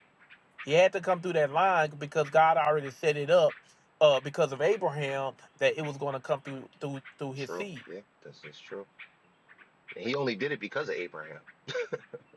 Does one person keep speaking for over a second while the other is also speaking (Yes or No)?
No